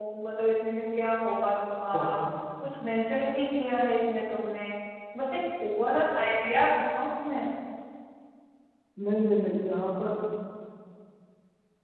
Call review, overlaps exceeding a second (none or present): none